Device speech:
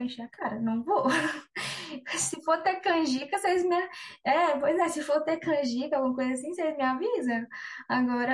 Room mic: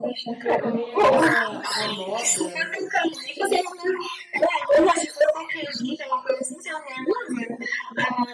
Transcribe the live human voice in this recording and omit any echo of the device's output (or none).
Eu comi aquela, a moda